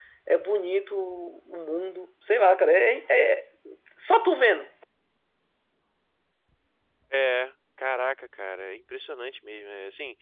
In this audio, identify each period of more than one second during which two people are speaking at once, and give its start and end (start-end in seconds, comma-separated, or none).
none